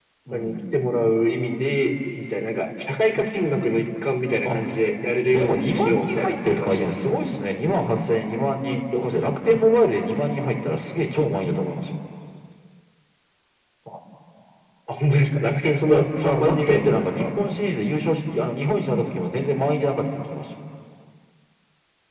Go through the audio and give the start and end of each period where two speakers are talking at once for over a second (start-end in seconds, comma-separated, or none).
5.3-6.9, 15.9-17.2